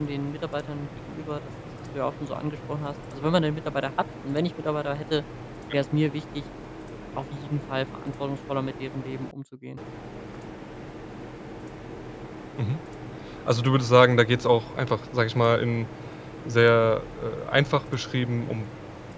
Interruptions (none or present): none